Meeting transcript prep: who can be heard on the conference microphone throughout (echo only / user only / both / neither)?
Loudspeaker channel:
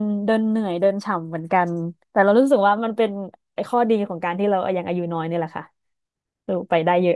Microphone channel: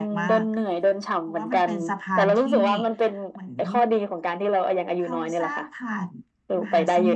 both